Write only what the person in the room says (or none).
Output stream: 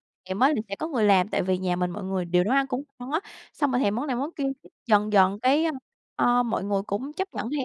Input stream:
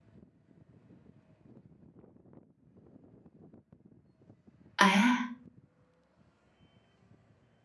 À!